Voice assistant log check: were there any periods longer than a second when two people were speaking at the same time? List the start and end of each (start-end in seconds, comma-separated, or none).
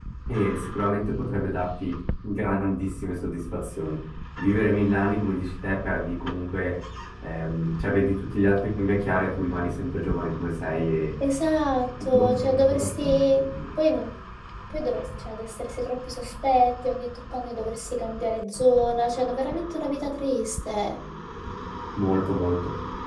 12.1-13.5